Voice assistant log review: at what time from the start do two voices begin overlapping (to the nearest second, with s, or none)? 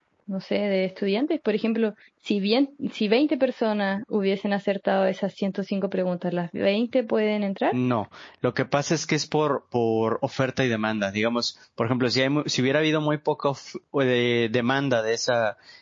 none